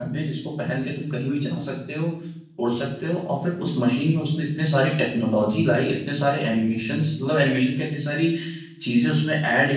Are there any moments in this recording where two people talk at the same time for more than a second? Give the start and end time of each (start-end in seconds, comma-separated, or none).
none